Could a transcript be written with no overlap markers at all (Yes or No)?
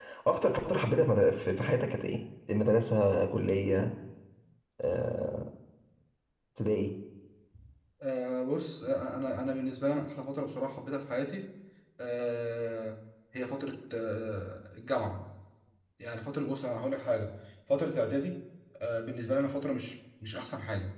Yes